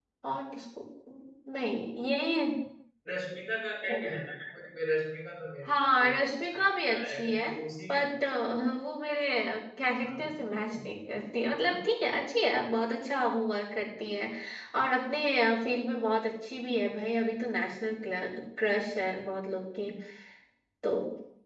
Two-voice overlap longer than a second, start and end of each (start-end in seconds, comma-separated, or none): 5.6-7.5